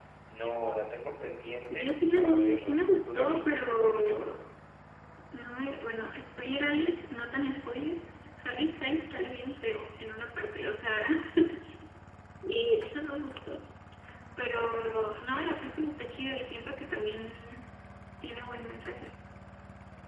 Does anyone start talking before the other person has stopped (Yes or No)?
Yes